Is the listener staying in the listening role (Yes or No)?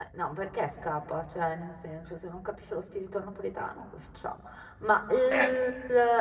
Yes